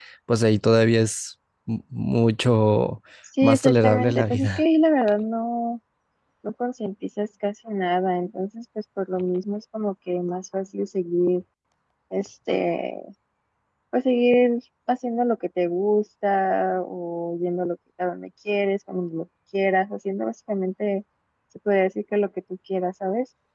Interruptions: present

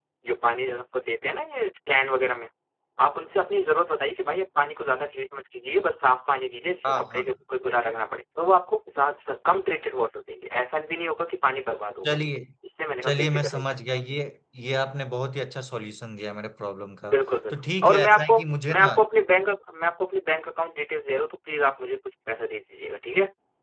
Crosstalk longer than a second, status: present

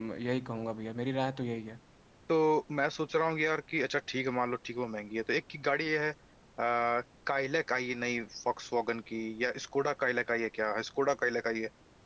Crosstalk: none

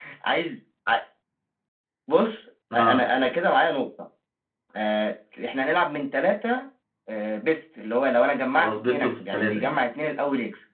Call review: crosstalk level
present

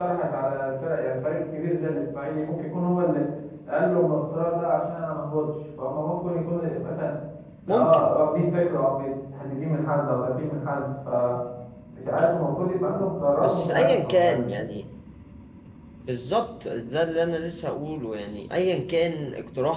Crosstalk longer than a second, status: present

